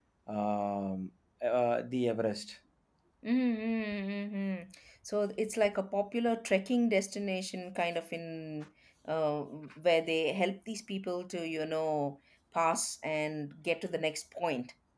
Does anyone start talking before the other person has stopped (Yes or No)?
No